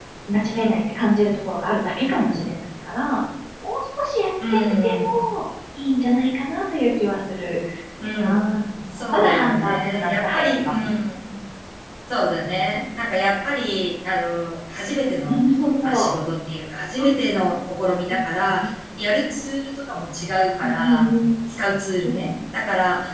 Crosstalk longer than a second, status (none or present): present